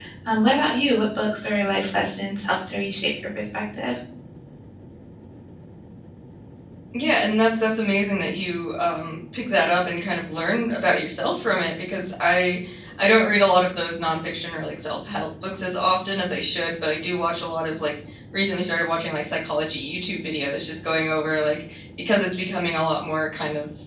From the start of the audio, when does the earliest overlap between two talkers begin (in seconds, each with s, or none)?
none